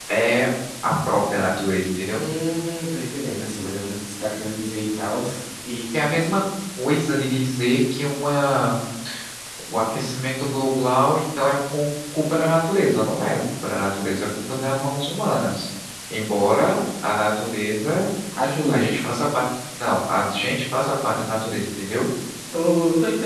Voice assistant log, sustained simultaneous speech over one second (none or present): none